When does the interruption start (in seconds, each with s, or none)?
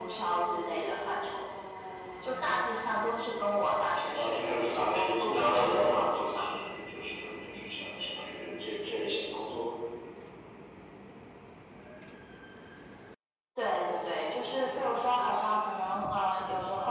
4.1 s